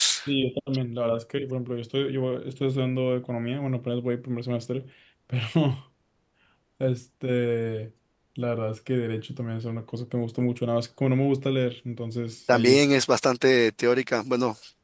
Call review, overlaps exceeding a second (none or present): none